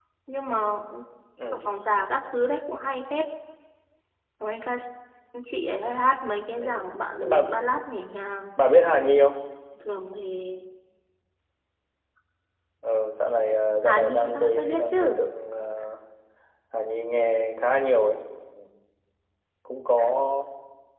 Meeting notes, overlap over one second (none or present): present